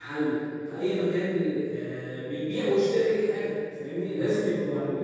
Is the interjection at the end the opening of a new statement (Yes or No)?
No